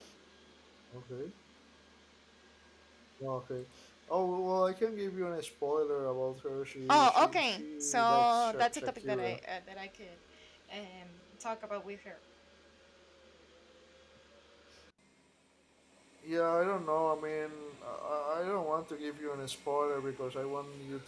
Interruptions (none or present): present